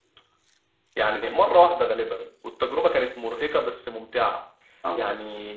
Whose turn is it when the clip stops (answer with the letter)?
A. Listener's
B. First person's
B